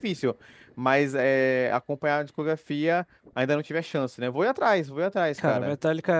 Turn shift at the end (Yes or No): Yes